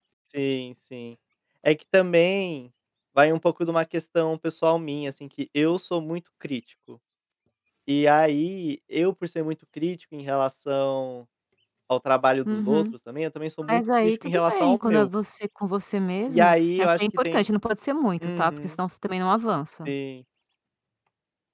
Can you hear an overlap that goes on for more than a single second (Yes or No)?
Yes